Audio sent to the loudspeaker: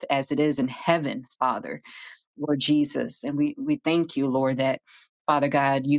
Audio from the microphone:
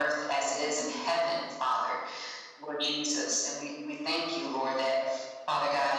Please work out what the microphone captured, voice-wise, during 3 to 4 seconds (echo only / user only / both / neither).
echo only